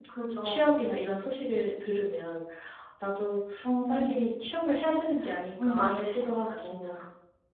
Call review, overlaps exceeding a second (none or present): present